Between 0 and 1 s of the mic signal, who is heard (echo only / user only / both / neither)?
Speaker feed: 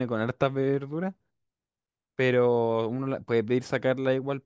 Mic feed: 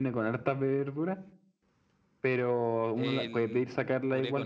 echo only